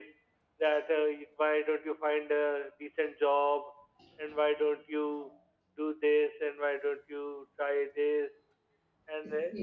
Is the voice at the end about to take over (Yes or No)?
Yes